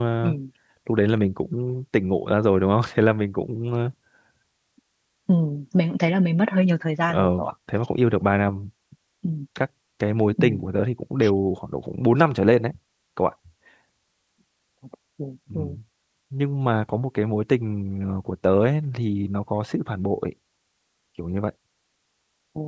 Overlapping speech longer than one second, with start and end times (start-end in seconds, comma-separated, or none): none